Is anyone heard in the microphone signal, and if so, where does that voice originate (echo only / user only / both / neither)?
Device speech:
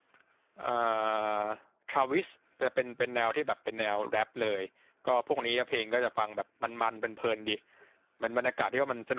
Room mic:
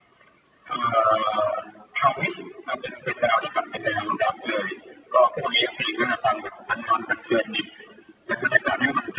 echo only